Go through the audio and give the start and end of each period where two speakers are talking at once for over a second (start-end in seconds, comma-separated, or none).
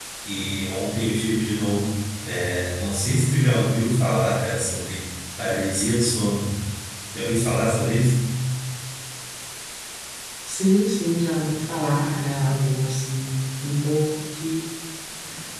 none